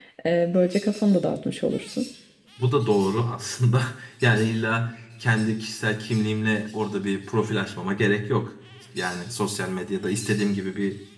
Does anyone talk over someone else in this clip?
No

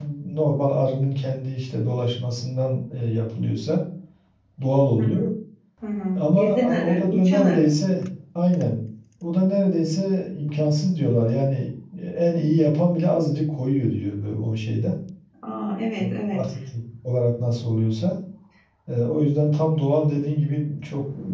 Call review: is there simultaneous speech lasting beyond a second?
Yes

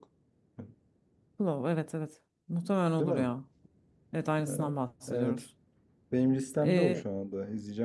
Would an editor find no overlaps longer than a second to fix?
Yes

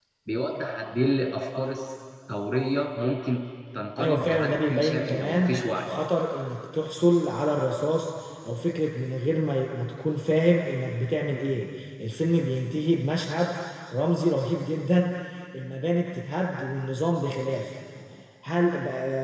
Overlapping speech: Yes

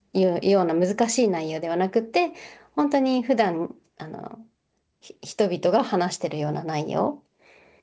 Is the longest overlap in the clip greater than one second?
No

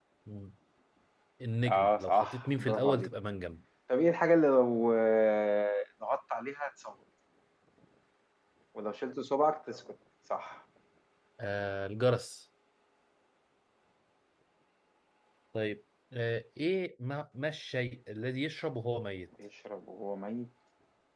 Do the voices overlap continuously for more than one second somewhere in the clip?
Yes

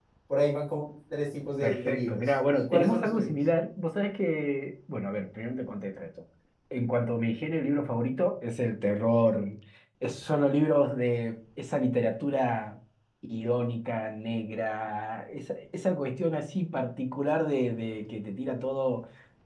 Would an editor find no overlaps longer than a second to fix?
No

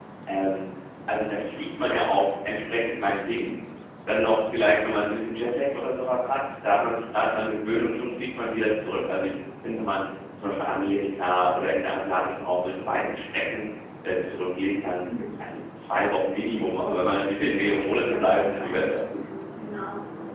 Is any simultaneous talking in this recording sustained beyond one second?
Yes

